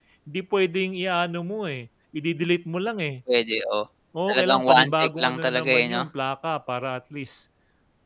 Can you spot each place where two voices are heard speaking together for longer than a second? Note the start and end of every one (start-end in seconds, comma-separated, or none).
4.3-6.0